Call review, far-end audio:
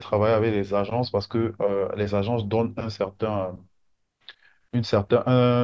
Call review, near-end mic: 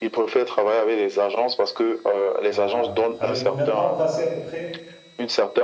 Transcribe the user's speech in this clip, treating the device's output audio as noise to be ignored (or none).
Ah, avec combien de temps passé à peu près?